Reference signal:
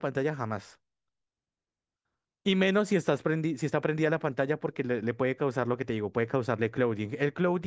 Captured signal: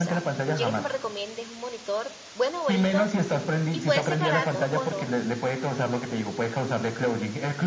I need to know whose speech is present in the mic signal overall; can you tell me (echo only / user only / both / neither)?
both